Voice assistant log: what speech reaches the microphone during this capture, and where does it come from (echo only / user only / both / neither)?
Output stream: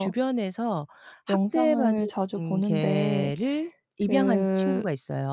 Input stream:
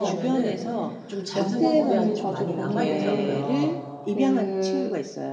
both